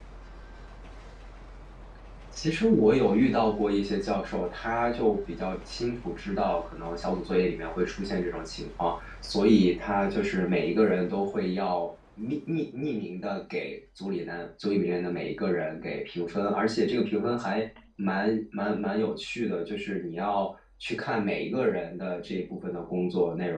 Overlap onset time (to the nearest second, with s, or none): none